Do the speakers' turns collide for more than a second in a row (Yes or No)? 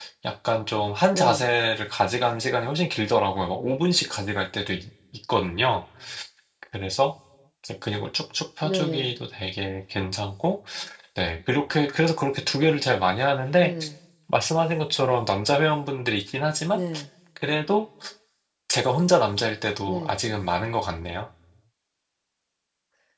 No